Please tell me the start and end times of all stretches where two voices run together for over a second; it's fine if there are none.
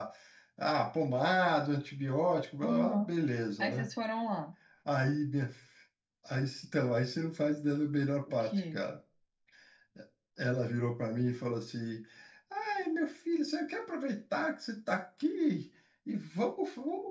none

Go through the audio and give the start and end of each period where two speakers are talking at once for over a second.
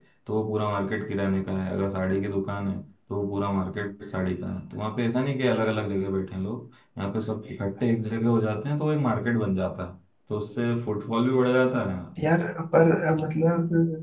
none

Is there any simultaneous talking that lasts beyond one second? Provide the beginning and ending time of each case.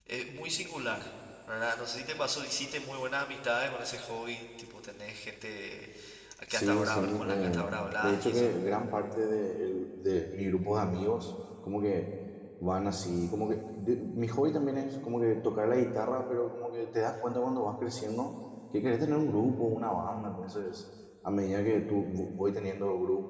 6.5-8.5

